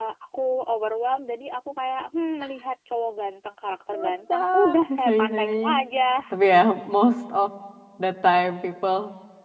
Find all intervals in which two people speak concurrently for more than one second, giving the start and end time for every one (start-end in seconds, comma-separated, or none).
3.9-5.7